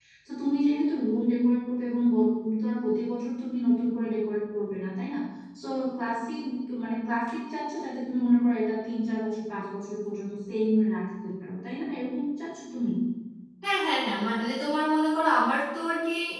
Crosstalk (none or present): none